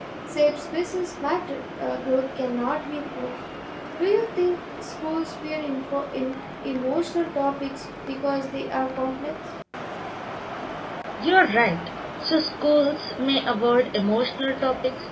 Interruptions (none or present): none